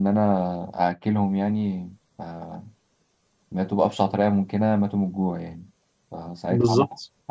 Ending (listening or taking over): listening